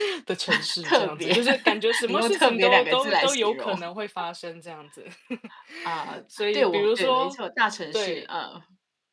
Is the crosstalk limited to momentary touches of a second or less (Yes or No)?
No